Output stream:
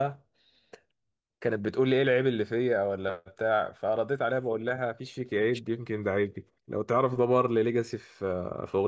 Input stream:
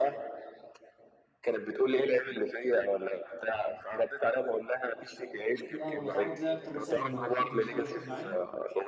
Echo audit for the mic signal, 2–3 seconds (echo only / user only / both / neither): echo only